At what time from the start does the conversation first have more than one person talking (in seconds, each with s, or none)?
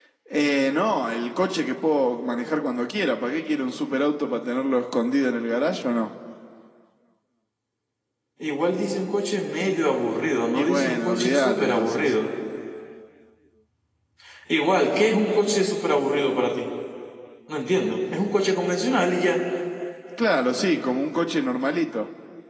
10.5 s